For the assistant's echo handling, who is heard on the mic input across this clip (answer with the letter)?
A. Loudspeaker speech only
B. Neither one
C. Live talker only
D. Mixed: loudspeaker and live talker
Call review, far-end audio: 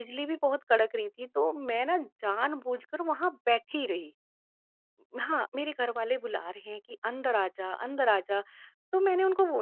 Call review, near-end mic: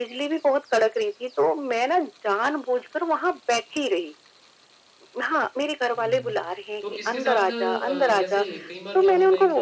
D